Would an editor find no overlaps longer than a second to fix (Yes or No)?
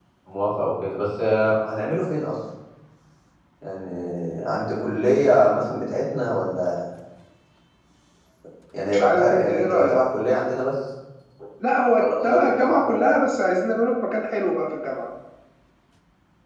No